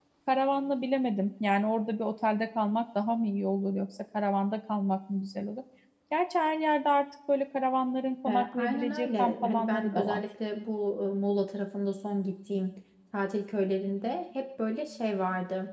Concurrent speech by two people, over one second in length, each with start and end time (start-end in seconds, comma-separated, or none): 8.3-10.2